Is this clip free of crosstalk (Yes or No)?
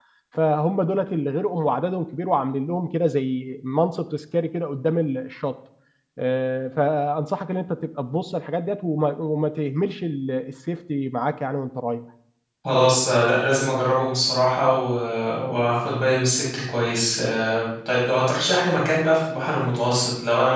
Yes